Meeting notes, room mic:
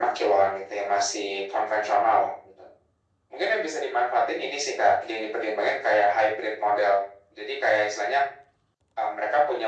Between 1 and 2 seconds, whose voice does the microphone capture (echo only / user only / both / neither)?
echo only